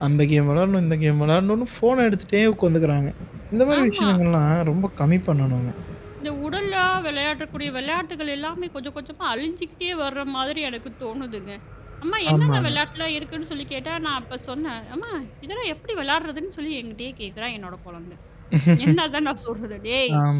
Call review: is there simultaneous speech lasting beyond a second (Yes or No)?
No